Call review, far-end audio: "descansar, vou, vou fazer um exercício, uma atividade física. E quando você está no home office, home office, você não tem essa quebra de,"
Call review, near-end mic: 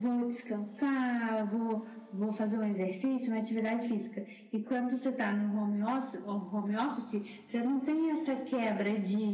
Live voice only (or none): none